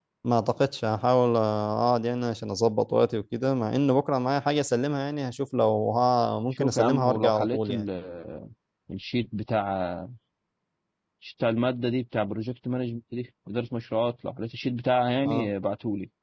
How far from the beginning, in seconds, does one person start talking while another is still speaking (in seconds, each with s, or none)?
6.5 s